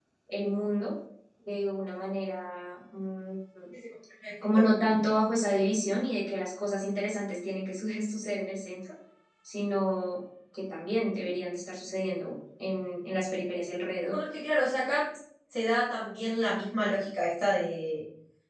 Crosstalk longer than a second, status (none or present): none